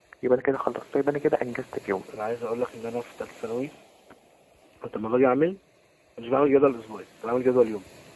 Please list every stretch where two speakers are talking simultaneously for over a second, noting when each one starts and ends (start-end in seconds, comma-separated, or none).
none